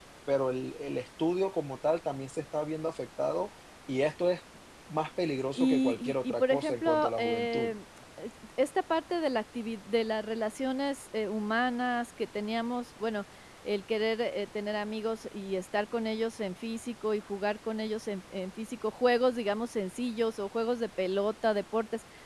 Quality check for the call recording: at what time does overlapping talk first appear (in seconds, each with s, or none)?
5.6 s